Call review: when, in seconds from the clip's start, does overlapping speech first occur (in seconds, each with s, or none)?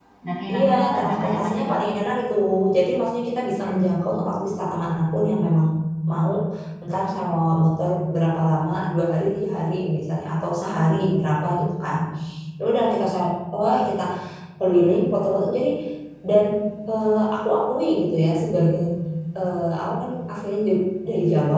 0.5 s